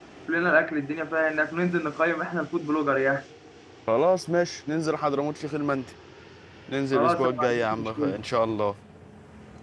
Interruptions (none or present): present